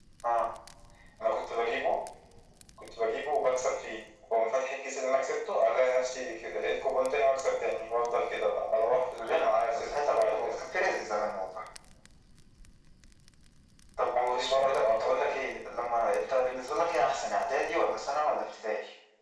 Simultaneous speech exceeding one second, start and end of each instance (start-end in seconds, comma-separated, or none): 9.2-10.6, 14.2-15.4